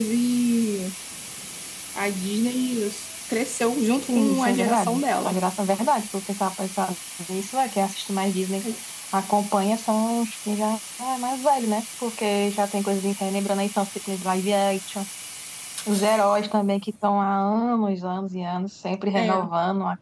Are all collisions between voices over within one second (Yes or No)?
No